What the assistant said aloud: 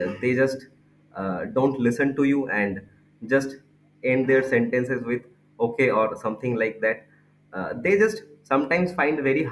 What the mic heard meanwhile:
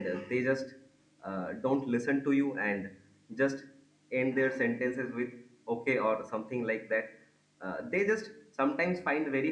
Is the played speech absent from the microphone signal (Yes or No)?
No